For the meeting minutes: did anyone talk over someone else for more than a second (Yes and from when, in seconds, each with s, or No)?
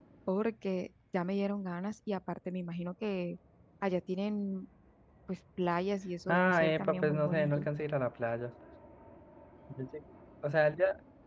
Yes, from 6.3 s